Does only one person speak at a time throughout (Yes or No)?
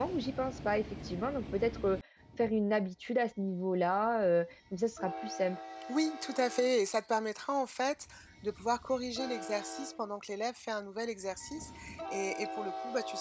Yes